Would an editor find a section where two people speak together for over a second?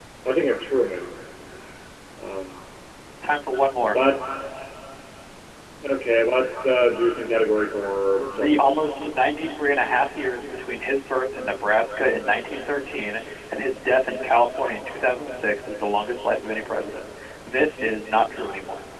No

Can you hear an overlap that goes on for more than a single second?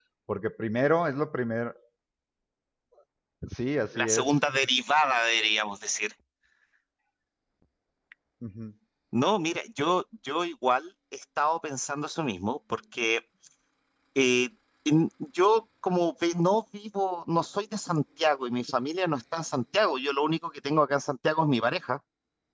No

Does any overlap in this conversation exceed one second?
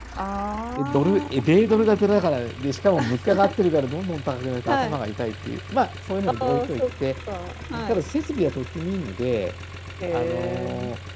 Yes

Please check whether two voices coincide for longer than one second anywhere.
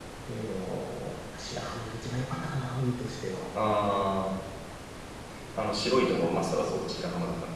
No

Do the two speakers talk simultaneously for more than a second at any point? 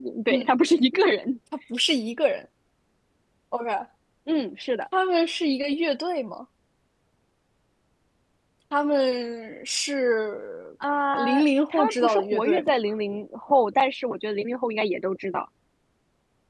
Yes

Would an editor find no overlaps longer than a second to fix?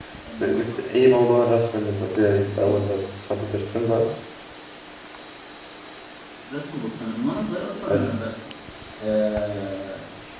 Yes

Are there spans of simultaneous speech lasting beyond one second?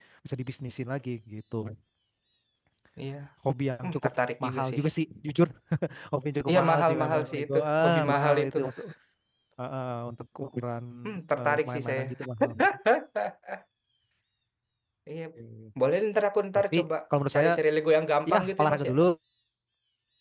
Yes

